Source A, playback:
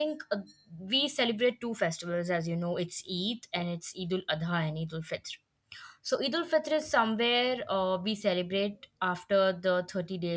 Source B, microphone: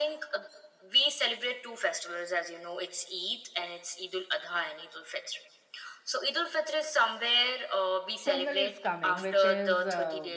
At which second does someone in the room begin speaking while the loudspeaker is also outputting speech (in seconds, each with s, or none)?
8.2 s